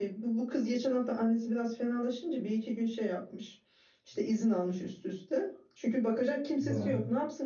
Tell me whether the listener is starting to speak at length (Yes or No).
No